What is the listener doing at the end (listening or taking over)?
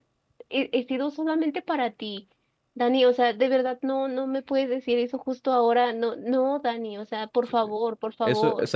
taking over